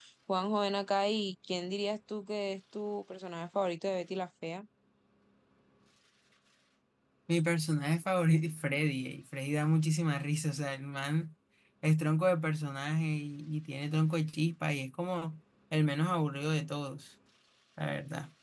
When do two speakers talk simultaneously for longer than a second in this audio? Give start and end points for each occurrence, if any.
none

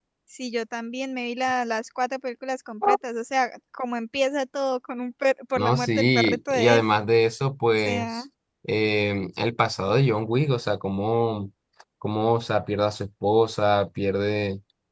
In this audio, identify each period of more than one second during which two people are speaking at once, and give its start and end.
5.6-6.8

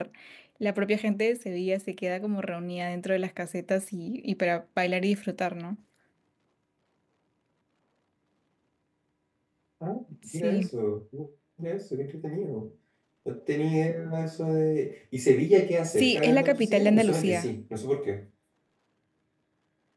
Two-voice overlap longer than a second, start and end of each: 15.9-17.5

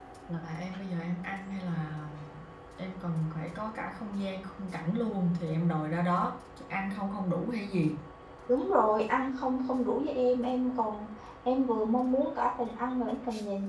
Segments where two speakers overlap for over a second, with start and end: none

